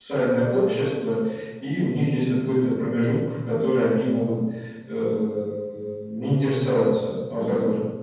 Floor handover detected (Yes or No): Yes